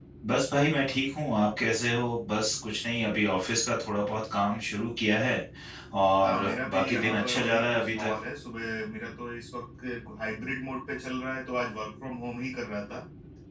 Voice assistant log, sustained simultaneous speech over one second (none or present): present